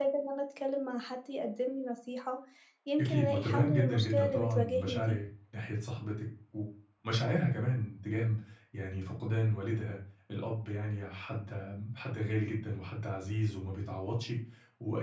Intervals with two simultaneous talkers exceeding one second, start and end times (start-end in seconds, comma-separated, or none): 3.0-5.2